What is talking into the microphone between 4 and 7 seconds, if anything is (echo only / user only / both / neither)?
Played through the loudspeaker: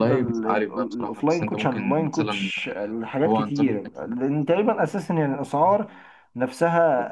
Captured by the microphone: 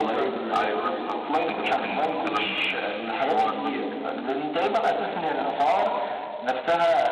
echo only